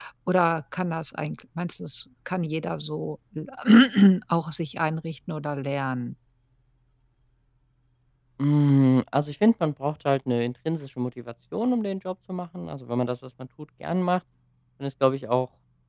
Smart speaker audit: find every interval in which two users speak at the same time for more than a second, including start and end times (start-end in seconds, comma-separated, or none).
none